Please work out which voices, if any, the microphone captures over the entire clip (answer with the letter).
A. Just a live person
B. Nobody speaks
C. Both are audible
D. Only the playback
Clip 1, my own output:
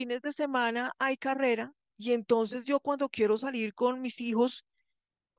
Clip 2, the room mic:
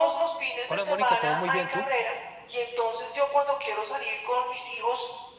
C